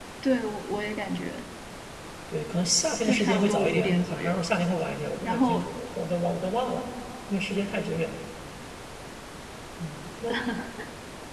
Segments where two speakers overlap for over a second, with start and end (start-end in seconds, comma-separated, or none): 3.0-4.4